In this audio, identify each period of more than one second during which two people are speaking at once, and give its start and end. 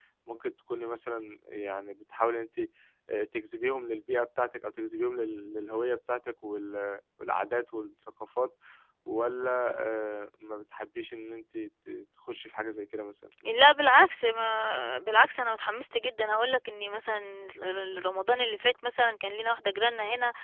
none

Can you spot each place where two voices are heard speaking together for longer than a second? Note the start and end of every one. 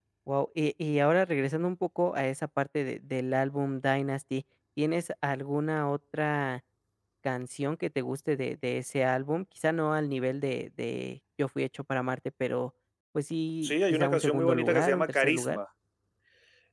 13.6-15.6

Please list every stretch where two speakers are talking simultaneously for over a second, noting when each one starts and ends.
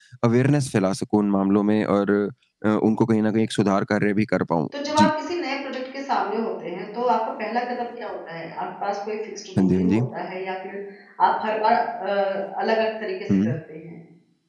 none

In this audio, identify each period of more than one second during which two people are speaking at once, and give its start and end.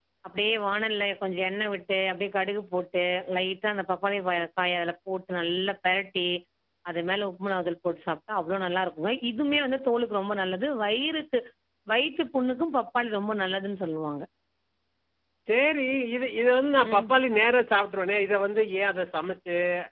none

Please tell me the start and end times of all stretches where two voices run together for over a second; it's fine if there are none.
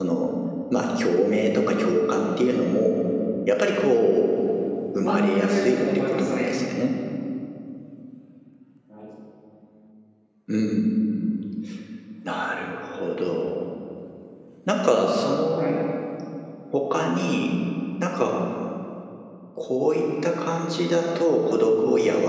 5.0-6.5

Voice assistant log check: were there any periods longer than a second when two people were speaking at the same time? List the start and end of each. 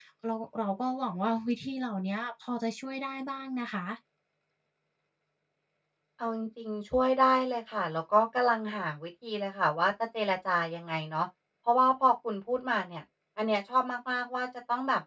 none

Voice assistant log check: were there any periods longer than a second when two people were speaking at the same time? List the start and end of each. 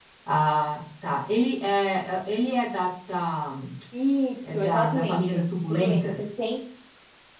4.5-6.2

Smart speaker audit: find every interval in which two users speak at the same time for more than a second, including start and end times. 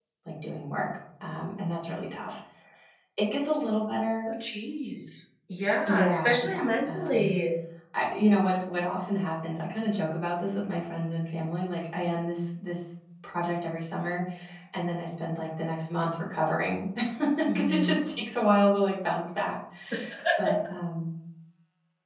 5.9-7.3

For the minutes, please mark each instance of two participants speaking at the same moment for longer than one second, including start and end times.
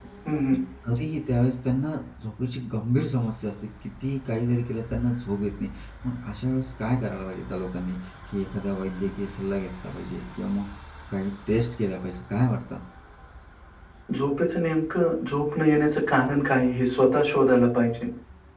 none

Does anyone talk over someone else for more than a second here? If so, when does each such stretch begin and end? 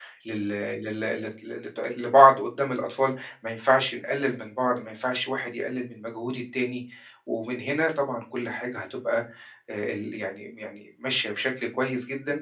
none

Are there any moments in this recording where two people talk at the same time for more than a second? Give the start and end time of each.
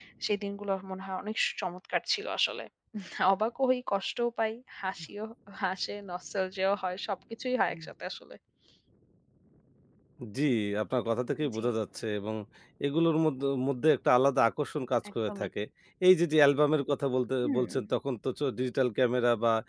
none

